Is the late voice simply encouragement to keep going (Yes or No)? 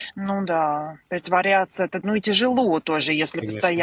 Yes